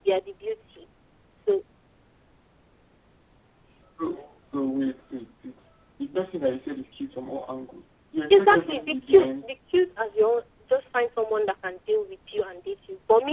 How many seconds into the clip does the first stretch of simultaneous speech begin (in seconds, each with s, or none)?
8.3 s